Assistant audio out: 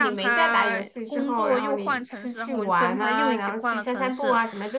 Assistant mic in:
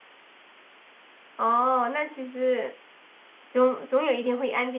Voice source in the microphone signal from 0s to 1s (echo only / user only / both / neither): neither